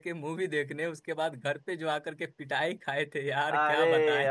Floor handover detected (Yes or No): Yes